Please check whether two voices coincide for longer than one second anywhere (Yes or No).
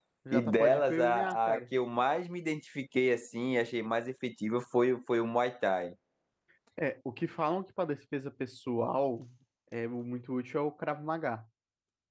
Yes